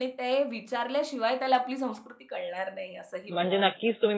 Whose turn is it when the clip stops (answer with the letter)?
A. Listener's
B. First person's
A